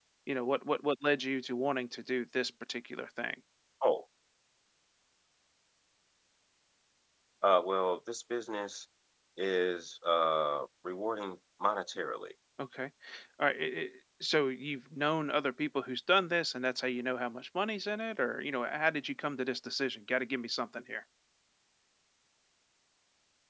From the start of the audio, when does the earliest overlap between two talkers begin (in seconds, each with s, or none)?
none